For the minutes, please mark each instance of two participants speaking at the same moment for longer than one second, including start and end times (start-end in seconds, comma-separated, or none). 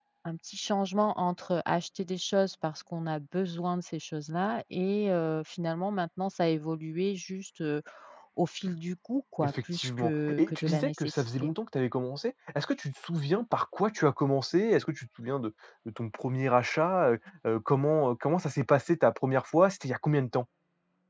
9.4-11.5